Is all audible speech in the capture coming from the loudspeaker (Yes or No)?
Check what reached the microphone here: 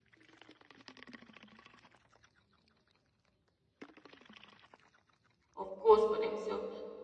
No